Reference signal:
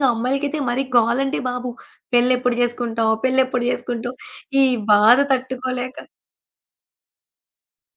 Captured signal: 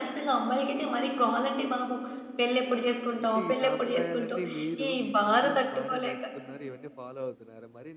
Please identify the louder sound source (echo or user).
echo